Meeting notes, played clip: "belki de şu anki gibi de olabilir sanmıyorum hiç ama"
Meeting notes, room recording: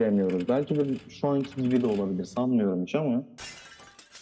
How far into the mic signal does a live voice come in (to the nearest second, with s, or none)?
none